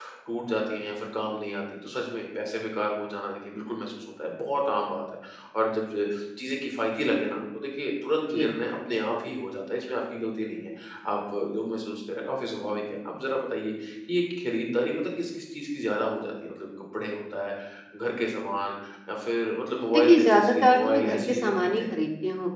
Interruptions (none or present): present